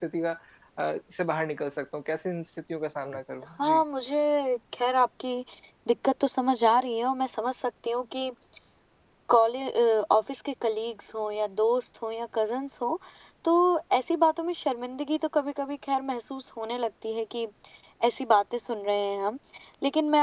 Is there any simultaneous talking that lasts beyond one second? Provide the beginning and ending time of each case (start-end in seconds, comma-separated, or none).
none